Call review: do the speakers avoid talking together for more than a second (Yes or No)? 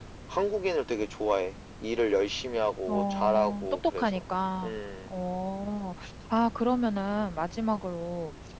No